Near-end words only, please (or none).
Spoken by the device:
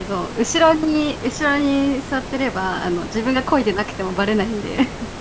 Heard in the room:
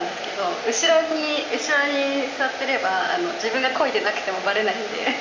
none